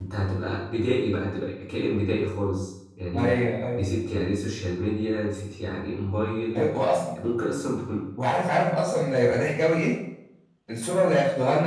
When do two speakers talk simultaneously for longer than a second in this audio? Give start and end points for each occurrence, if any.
none

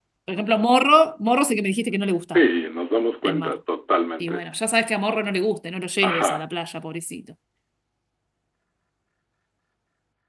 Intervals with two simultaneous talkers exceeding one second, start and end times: none

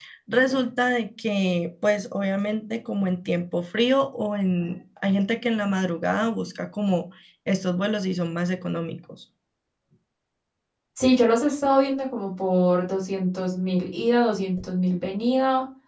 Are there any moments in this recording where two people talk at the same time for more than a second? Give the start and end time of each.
none

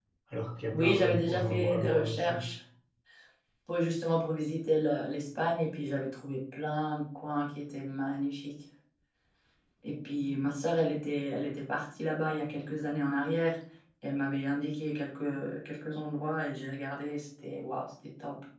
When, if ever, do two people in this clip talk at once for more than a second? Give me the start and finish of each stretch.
0.7-2.3

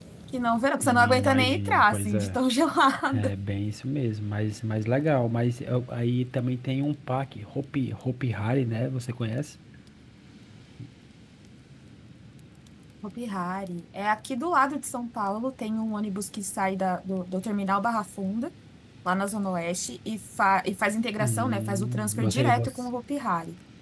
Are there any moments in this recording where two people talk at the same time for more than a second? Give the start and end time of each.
0.8-2.4, 21.2-22.8

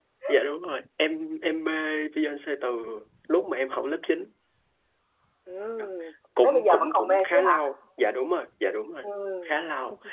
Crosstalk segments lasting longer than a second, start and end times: 6.4-7.6

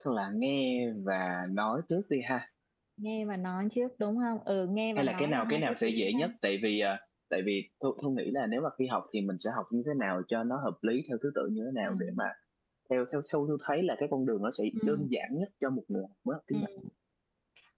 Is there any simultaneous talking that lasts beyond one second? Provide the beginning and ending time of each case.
5.0-6.3

